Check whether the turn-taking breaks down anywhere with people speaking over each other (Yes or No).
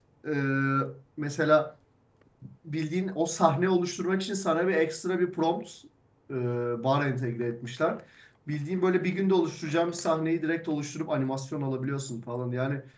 No